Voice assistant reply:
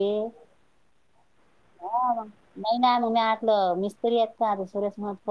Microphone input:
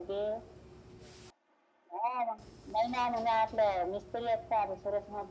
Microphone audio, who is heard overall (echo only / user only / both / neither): echo only